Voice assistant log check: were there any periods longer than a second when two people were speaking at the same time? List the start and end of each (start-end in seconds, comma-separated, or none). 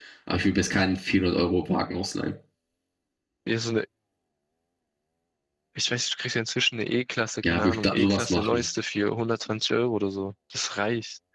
7.4-8.6